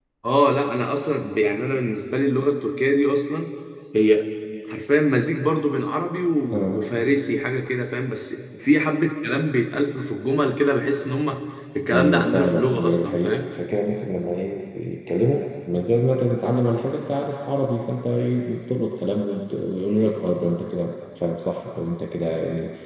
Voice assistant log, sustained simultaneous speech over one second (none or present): present